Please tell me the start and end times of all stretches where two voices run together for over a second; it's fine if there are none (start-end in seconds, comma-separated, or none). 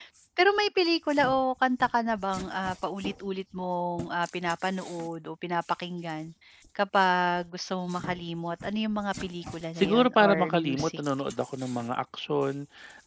9.8-11.0